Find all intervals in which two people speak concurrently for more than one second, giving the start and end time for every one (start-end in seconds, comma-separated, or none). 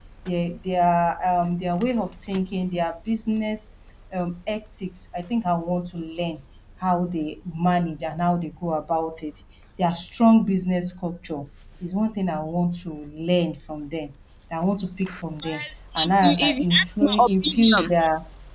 16.0-17.9